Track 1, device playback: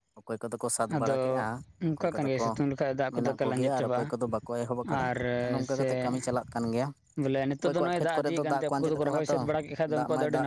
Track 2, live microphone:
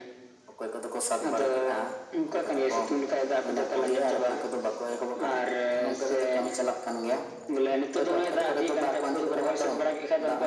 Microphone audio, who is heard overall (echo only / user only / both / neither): echo only